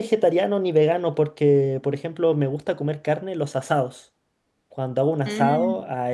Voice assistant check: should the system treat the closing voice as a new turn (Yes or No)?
No